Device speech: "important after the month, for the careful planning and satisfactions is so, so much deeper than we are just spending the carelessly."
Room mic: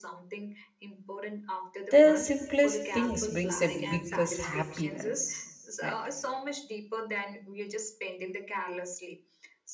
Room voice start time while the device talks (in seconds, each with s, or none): 1.9 s